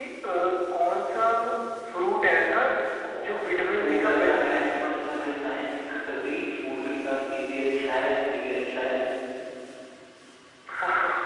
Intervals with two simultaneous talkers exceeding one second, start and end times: 3.3-4.9

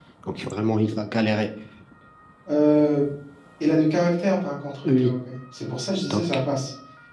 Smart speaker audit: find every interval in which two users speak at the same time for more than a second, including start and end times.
none

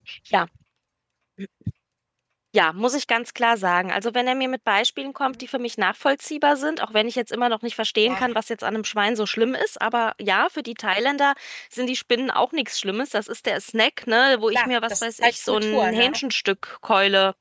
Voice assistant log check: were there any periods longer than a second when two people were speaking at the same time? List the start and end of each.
14.5-16.2

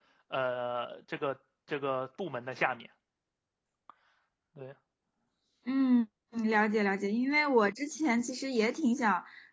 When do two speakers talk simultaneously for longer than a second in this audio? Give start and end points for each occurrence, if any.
none

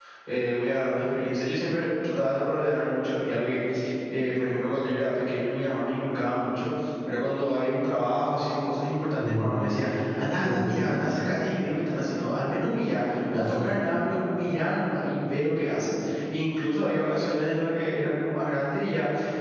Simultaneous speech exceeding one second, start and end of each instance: none

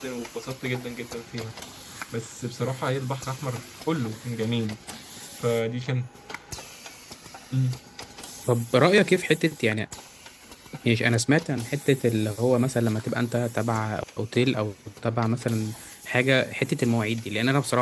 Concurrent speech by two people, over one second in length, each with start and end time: none

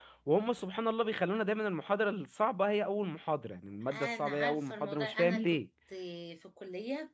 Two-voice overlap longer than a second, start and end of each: 3.9-5.6

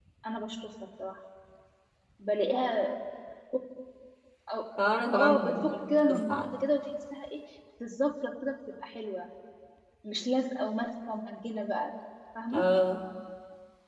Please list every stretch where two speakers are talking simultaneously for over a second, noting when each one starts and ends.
5.1-6.5

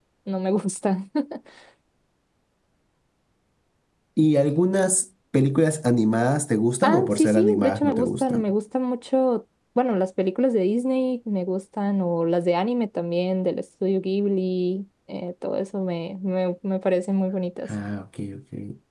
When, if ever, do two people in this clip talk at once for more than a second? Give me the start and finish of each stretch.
6.8-8.4

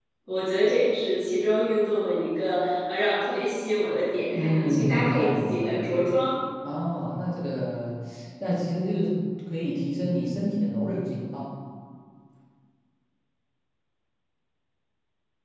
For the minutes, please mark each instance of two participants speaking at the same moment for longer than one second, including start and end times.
4.3-6.1

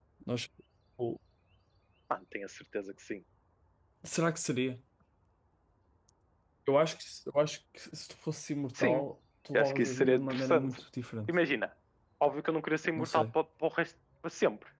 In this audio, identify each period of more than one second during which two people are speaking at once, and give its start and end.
9.5-10.8

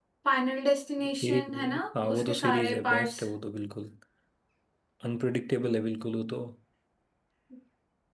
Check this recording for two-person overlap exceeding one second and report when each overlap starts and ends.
1.2-3.2

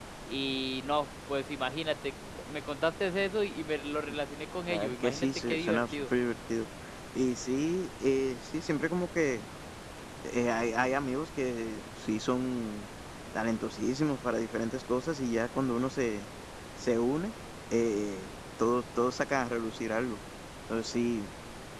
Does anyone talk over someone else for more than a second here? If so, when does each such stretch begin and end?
4.6-6.1

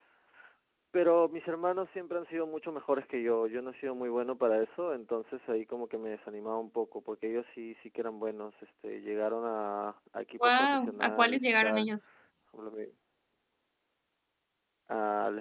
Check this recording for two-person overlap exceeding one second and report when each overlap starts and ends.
10.4-11.9

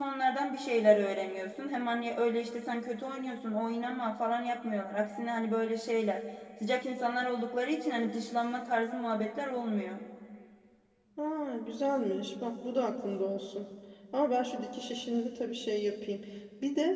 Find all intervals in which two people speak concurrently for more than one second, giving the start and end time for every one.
none

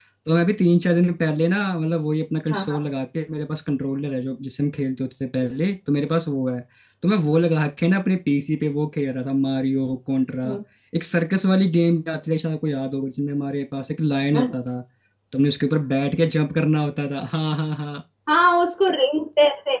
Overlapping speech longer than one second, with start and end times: none

